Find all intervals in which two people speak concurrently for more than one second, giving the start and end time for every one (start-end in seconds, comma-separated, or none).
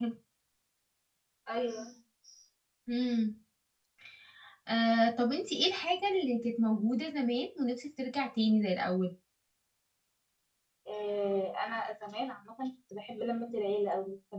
none